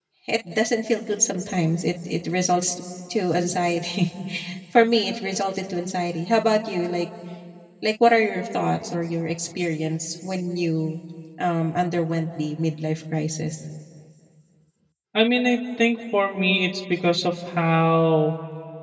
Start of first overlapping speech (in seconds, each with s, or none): none